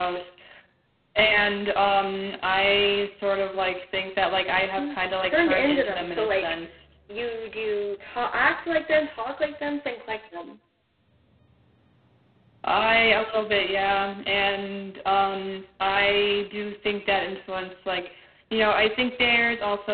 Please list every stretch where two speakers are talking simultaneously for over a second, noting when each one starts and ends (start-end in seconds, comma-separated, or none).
4.8-6.4